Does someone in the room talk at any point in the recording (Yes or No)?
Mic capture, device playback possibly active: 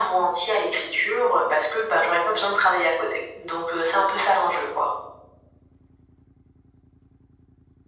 No